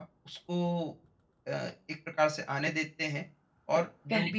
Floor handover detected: No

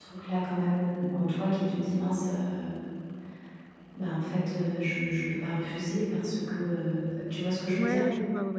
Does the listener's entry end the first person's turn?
Yes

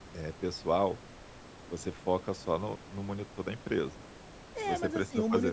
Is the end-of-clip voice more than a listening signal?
Yes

